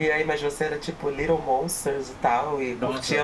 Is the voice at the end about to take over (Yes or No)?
Yes